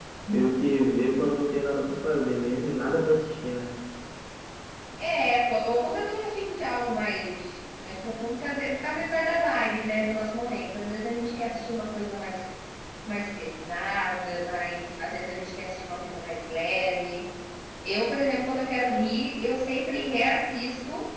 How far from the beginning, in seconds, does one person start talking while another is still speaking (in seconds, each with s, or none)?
none